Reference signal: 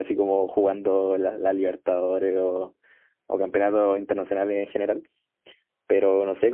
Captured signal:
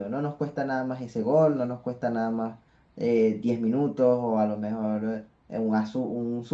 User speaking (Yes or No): Yes